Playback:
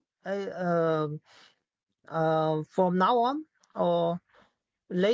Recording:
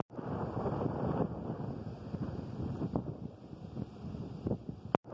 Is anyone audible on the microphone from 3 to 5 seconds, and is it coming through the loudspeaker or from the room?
neither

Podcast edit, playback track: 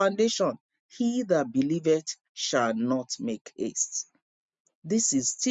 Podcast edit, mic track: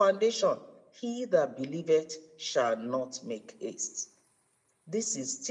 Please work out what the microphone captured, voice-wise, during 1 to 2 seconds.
echo only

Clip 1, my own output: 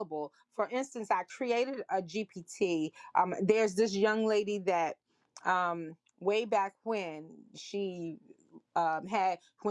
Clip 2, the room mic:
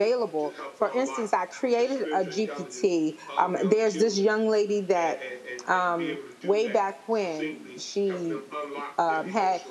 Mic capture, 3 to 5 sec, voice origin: both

